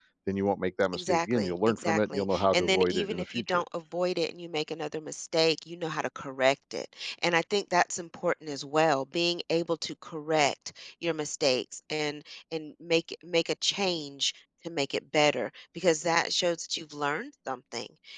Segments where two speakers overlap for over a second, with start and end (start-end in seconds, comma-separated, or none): 0.9-3.6